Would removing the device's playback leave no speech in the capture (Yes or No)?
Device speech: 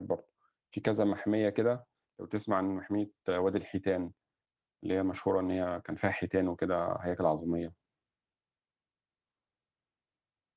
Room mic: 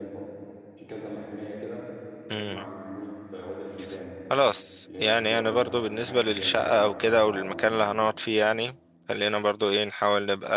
No